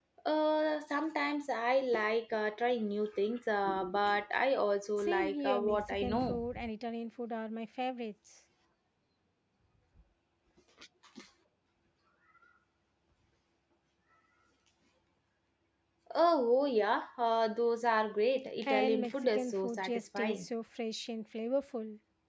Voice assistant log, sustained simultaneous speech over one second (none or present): present